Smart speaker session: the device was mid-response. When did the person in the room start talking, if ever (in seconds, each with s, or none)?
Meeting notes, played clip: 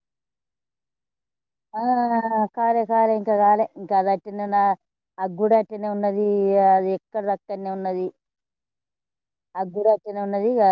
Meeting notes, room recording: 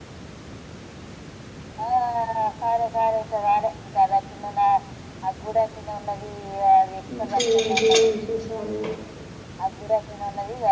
7.1 s